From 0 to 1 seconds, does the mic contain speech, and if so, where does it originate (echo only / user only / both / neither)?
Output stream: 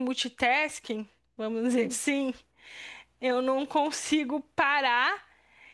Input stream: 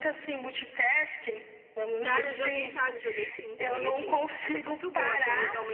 echo only